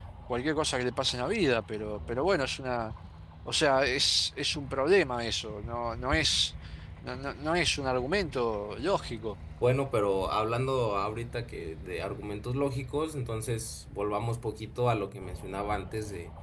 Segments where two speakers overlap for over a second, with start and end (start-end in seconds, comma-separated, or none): none